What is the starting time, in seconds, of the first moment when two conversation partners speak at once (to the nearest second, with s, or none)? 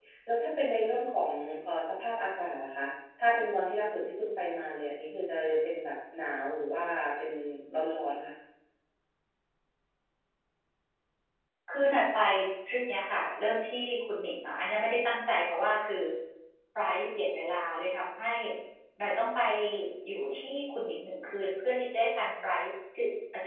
none